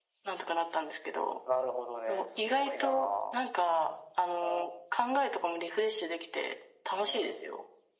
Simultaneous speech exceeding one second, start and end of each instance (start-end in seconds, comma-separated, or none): 2.1-3.4